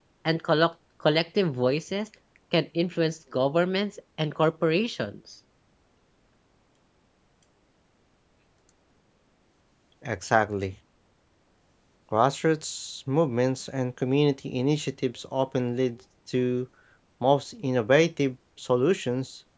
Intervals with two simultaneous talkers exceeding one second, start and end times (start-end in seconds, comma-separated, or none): none